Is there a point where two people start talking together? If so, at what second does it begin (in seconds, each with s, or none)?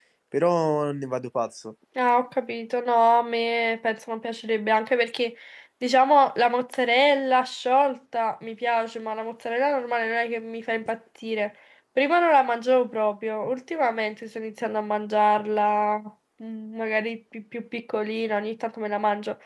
none